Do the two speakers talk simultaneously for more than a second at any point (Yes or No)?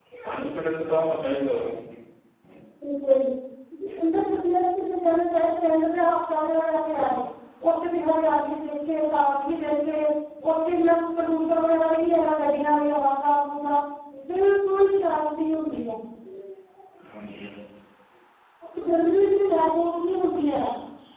No